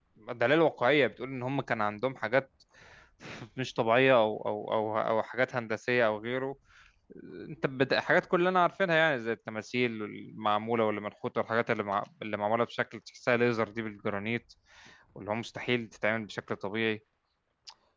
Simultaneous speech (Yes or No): No